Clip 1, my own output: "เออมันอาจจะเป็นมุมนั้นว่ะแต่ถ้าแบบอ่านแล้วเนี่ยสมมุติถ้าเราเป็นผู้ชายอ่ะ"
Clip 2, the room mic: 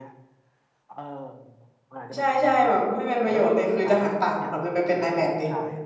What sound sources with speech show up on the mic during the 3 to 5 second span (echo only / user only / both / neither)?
both